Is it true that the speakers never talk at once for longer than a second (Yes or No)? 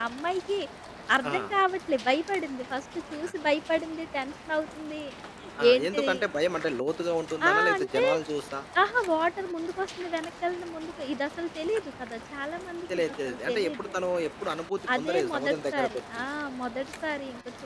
No